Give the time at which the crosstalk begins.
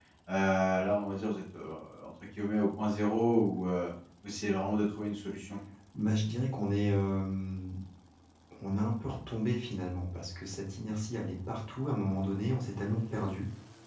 none

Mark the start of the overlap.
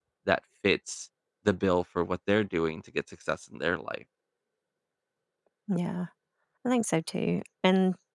none

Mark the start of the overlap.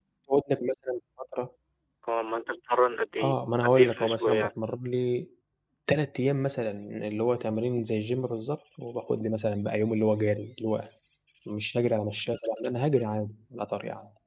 3.2 s

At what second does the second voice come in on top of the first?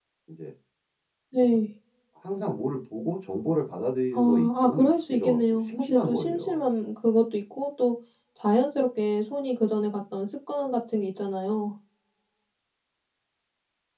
4.1 s

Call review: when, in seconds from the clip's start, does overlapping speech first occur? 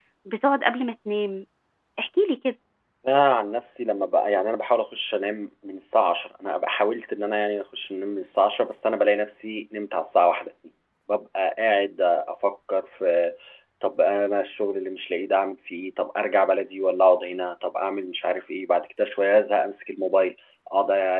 none

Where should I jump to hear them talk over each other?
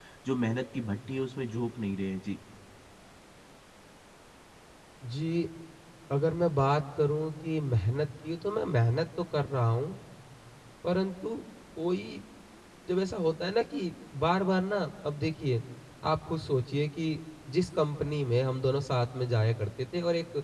none

